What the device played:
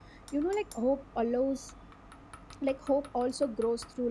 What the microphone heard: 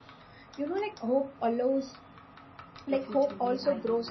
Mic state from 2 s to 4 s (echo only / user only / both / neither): both